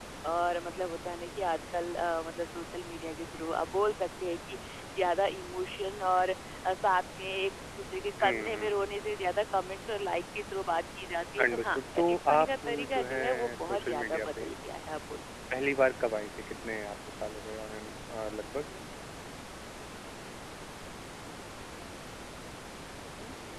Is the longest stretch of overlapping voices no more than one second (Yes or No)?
No